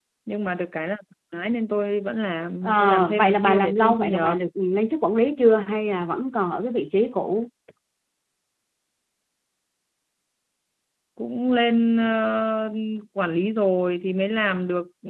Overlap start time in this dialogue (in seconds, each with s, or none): 2.6 s